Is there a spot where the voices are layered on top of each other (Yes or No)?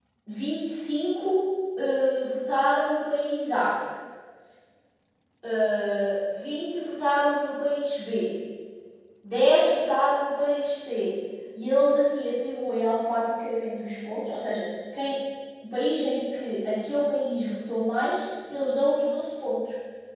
No